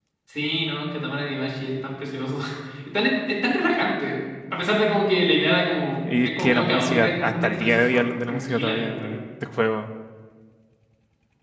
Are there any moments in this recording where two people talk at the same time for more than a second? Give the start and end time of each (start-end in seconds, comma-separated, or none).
6.2-9.2